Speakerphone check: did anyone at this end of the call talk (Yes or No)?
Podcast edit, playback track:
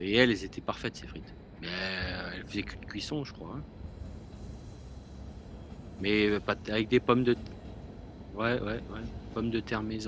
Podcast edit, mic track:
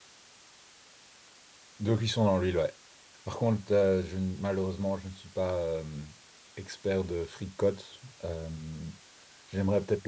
Yes